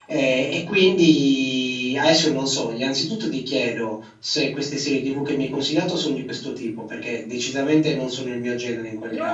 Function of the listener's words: taking over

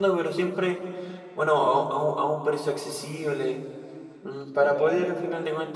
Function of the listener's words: listening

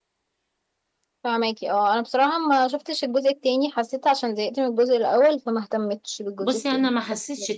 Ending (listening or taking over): taking over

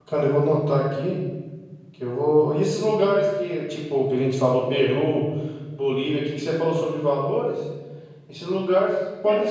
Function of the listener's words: listening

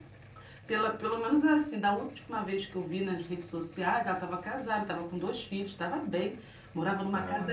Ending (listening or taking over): listening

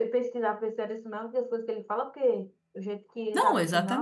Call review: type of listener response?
taking over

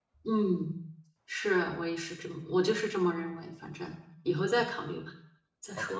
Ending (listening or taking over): taking over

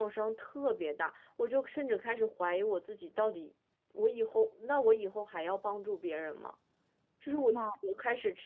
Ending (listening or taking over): listening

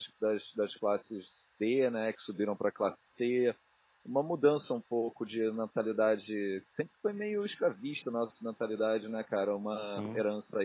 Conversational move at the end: listening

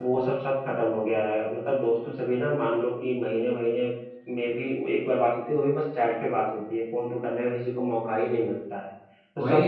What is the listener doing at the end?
listening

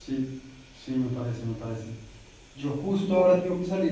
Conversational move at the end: listening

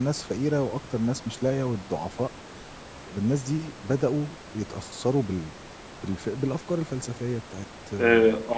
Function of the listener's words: taking over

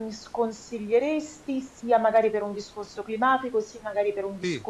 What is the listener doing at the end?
listening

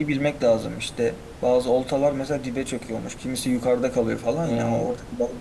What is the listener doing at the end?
listening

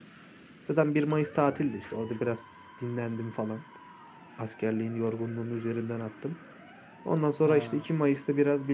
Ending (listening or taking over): listening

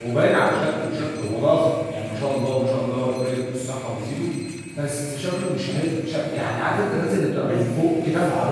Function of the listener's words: listening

